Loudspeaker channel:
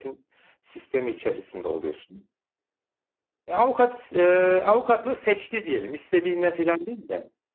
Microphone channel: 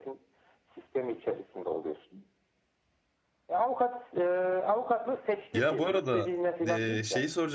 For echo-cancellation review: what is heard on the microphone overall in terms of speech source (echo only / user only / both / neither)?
both